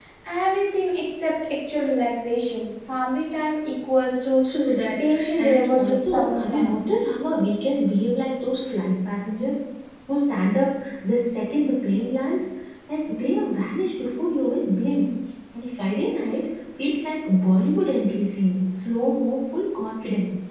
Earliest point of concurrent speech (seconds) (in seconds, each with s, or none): 5.0 s